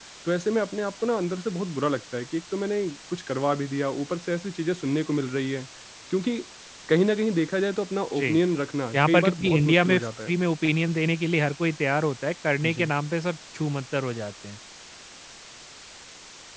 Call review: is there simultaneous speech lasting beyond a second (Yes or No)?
Yes